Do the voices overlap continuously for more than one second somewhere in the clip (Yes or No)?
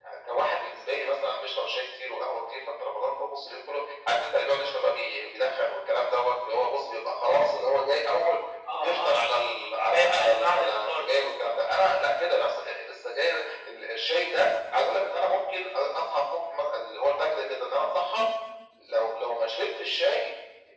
Yes